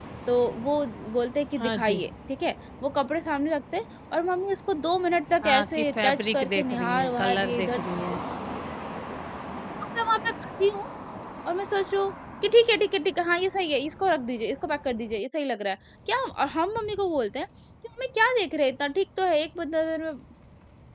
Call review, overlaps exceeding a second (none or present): present